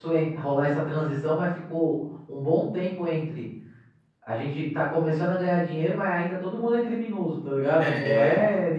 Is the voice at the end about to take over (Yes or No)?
No